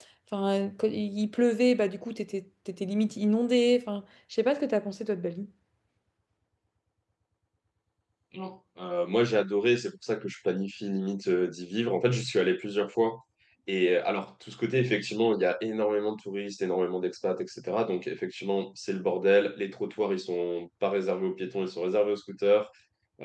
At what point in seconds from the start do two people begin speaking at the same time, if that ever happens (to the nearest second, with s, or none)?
none